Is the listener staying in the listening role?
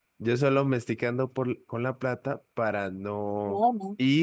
Yes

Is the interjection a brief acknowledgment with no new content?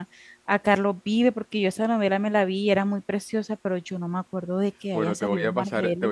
No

